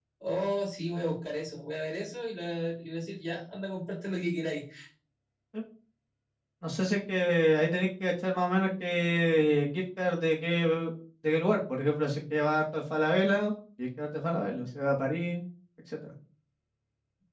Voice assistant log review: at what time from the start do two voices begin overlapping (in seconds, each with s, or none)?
none